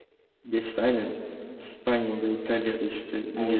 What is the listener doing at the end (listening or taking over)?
listening